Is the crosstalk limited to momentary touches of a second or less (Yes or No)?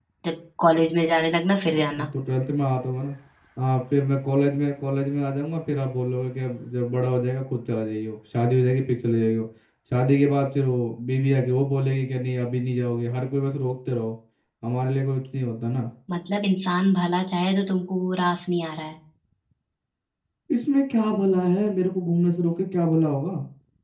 Yes